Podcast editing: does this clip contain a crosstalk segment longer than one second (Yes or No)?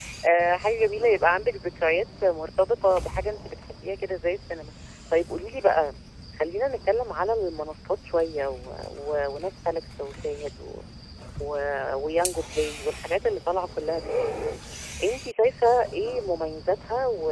No